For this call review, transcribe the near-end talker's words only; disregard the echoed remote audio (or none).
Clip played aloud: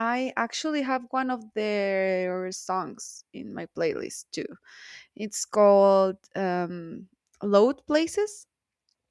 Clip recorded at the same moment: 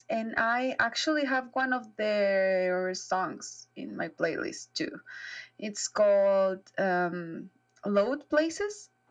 none